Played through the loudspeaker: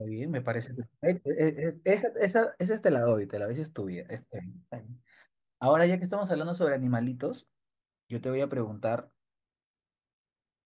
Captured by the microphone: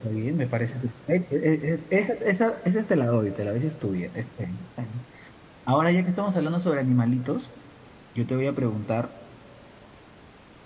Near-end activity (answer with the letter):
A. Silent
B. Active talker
A